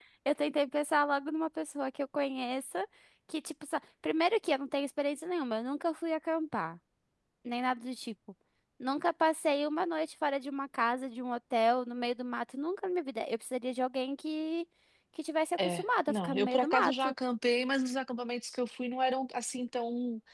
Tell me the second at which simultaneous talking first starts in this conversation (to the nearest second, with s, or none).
16 s